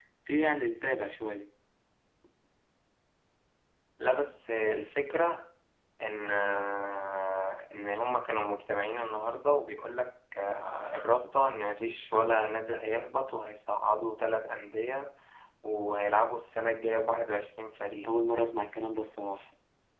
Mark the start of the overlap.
none

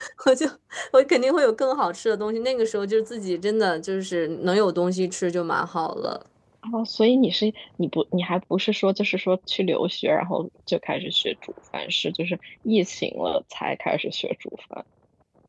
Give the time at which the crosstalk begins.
none

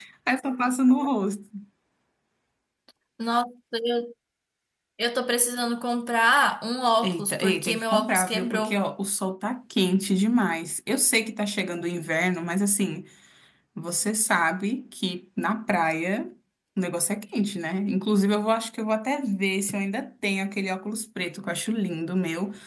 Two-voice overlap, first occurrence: 7.0 s

